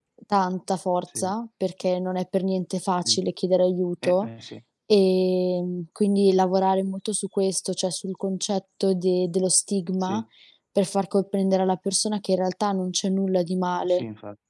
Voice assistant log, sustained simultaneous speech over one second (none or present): none